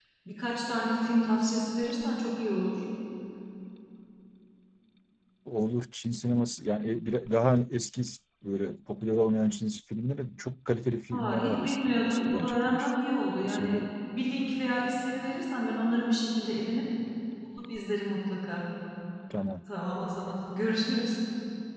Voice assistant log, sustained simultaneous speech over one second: present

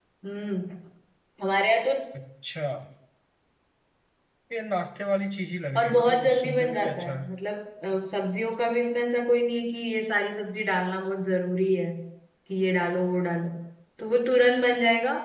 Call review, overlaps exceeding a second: present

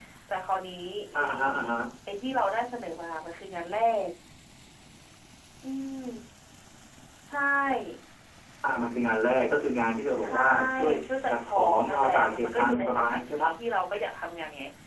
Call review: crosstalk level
present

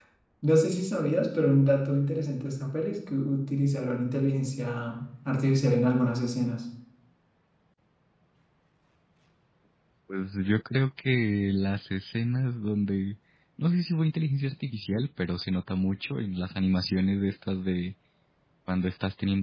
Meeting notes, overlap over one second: none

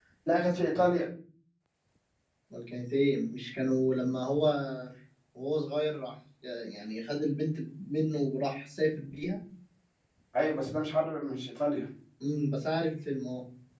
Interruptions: none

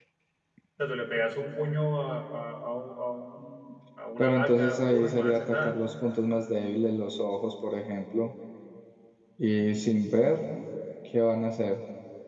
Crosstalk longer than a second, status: present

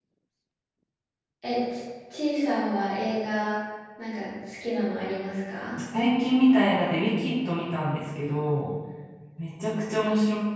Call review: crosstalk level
none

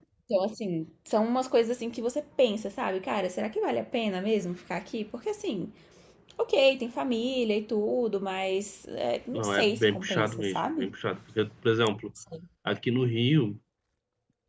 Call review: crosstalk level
present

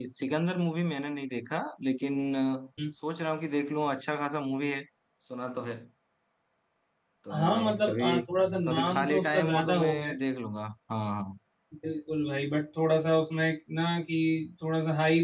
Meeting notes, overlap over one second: present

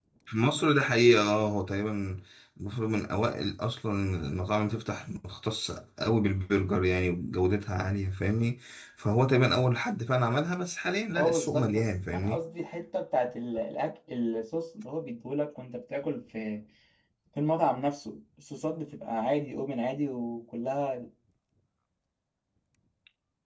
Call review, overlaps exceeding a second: present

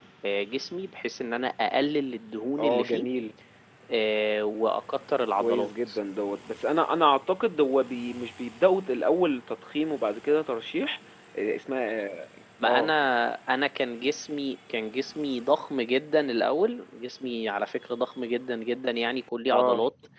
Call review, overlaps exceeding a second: none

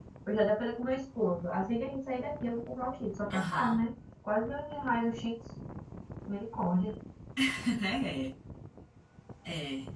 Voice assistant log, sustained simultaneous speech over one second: none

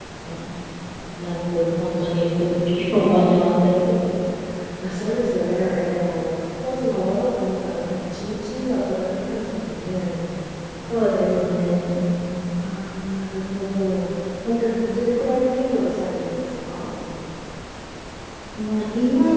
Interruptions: none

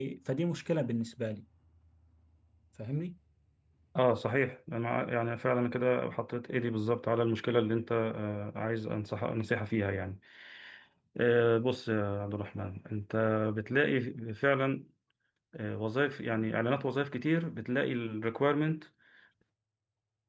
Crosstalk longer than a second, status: none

